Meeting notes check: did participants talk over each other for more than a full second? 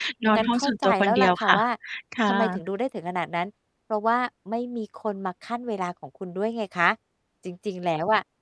Yes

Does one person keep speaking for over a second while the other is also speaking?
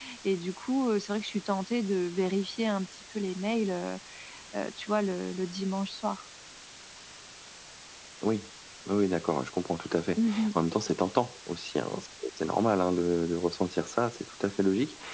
No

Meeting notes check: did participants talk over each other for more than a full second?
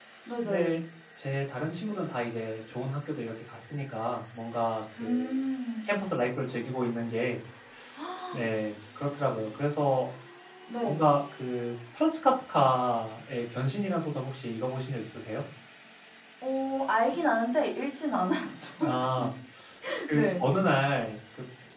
No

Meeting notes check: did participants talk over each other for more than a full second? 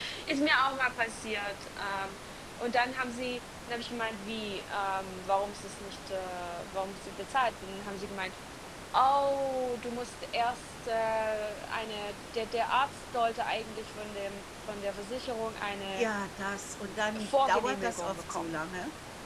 Yes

